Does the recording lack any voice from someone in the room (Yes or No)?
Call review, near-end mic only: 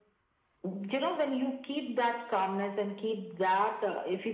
Yes